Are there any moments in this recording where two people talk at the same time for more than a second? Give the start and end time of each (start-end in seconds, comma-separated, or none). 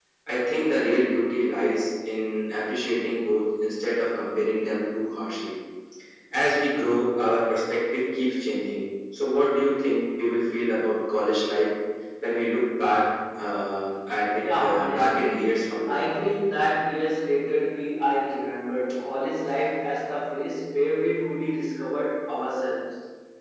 14.6-16.0